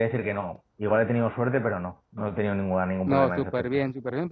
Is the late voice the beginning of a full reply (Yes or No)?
Yes